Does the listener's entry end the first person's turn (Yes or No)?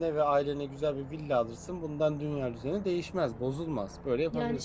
Yes